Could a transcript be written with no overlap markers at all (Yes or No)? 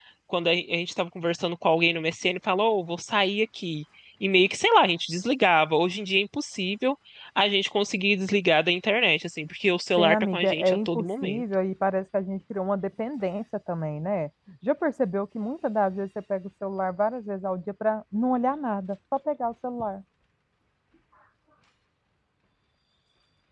No